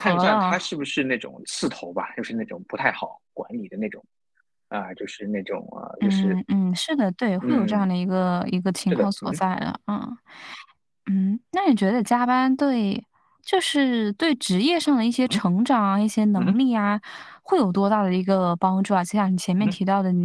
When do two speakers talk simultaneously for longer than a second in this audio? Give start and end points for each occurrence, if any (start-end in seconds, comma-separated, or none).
none